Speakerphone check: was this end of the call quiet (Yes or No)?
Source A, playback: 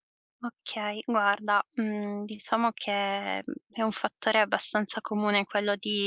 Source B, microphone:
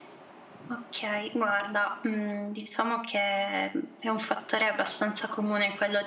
Yes